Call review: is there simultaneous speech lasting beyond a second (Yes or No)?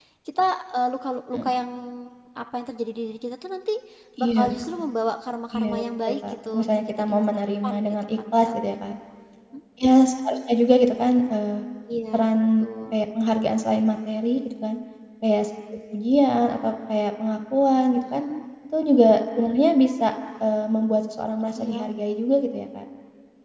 Yes